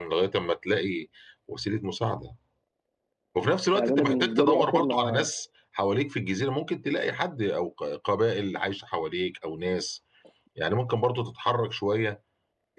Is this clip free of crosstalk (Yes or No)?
No